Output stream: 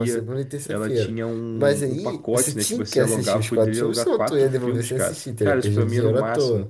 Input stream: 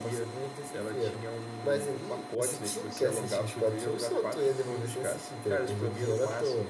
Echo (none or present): present